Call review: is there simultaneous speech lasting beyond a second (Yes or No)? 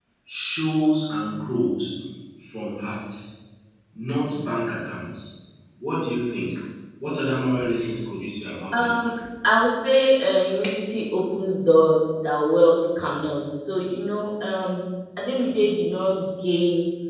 No